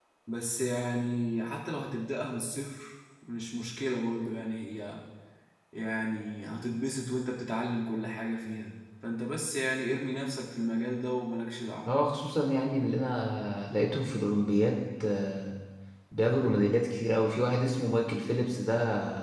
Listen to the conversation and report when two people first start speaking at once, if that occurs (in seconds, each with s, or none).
none